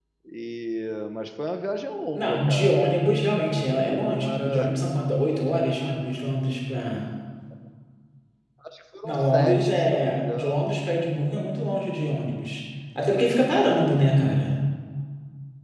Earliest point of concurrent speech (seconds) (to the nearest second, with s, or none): 2 s